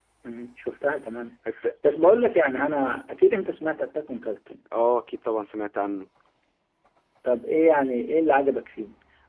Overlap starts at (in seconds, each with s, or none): none